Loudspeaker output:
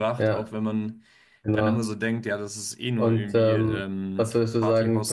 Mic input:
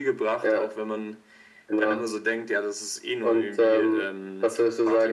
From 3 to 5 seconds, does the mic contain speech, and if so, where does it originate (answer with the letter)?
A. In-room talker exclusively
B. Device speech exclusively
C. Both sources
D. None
B